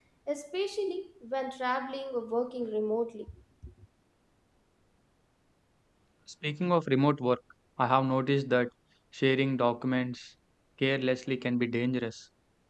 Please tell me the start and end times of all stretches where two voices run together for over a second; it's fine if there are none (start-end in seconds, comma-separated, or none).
none